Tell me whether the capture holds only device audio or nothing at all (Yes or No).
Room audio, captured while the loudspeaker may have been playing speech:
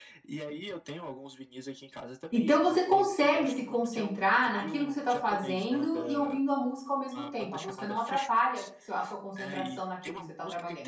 No